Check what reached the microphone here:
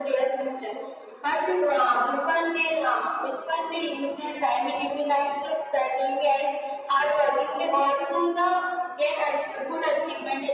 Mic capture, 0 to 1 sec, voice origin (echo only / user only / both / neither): echo only